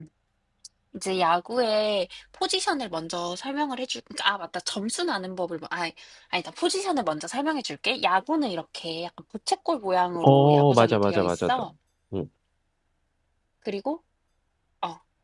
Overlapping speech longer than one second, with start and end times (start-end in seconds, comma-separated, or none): 10.2-11.6